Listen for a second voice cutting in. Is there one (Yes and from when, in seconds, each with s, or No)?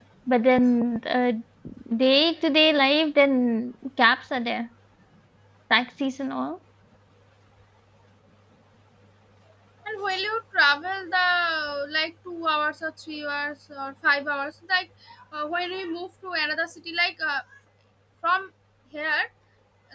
No